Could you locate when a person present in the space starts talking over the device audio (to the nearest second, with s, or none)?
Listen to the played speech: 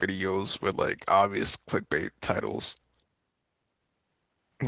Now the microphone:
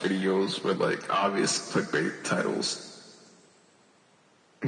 none